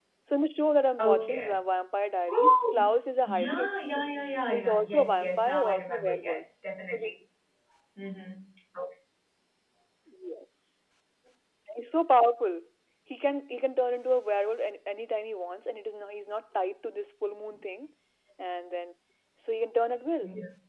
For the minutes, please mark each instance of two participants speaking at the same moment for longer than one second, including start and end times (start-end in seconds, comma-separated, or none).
4.5-6.4